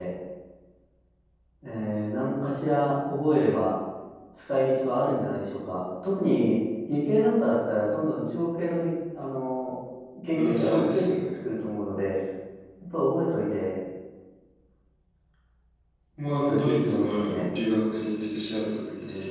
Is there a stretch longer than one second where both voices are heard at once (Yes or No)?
Yes